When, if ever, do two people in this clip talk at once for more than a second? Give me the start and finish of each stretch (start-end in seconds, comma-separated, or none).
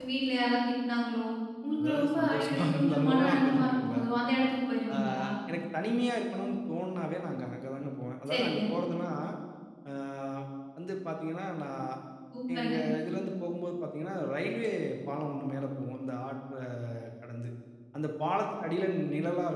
1.8-4.1